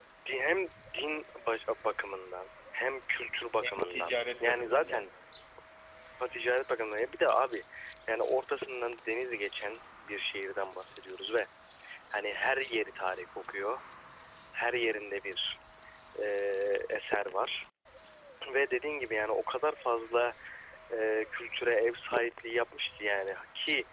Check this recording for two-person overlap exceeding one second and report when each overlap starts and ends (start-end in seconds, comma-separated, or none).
3.6-5.1